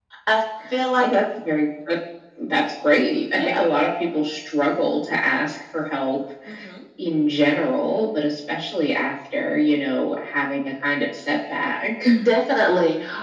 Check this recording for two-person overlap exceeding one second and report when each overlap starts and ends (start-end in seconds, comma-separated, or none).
none